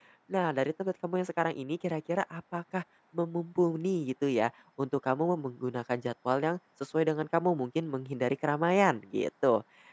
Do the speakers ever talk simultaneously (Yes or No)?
No